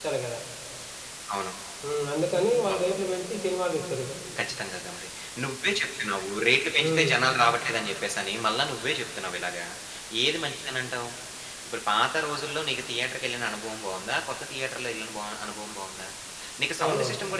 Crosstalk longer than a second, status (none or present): none